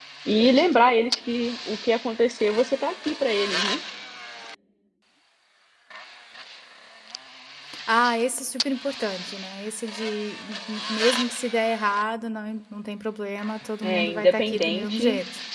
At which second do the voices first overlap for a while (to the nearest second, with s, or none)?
14 s